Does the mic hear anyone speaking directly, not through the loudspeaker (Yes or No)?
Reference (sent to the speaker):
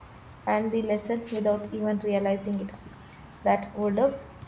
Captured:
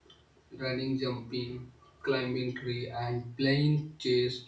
Yes